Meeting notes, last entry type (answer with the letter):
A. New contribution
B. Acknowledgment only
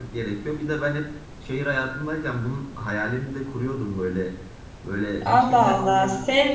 A